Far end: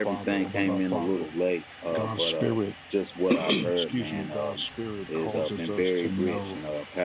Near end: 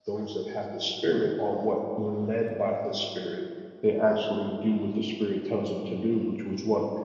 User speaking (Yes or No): Yes